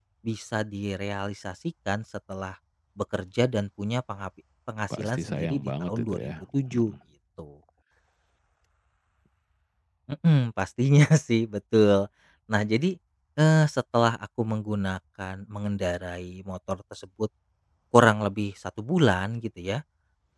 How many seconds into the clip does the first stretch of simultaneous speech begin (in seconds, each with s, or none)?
4.9 s